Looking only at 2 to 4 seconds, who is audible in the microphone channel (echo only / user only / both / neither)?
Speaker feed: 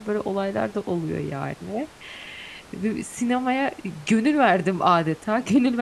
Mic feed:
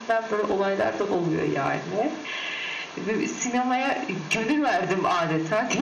echo only